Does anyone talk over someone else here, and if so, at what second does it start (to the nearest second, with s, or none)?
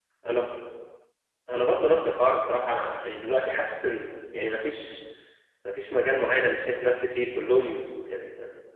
none